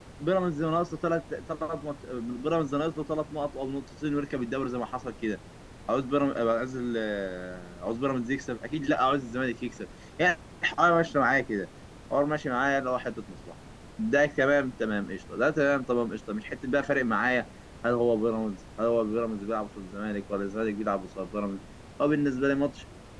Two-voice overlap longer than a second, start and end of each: none

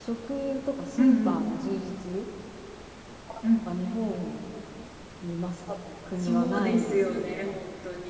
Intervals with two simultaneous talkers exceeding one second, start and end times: 6.2-7.6

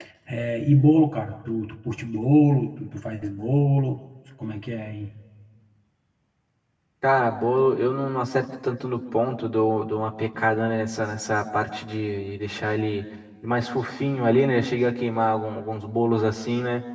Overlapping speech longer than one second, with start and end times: none

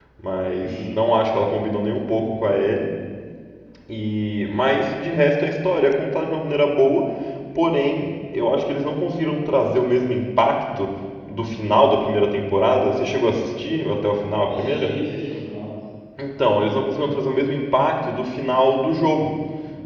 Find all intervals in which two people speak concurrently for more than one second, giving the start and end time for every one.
none

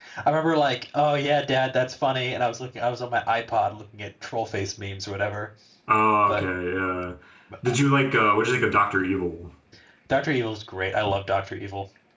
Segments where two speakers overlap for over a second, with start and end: none

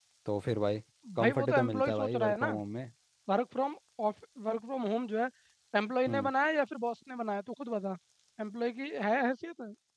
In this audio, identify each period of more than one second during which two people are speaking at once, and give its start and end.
1.2-2.5

